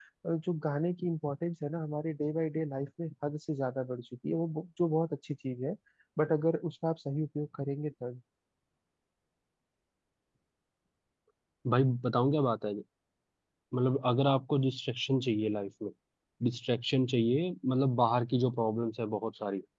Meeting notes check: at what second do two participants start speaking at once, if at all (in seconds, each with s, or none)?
none